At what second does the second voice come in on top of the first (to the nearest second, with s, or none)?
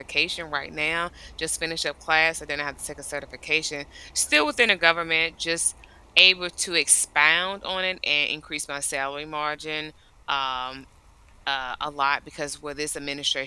none